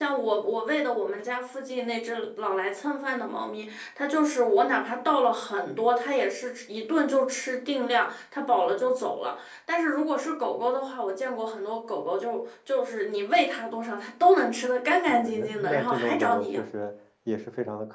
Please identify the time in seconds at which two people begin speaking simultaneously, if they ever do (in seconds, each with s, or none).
15.1 s